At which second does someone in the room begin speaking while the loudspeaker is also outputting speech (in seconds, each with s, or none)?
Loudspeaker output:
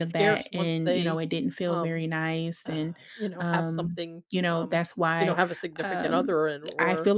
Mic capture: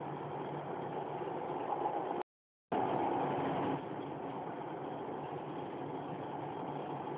none